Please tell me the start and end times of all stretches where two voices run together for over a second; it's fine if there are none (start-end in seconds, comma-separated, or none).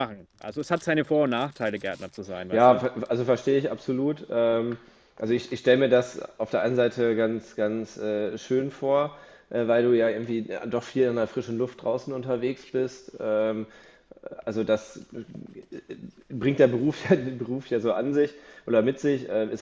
none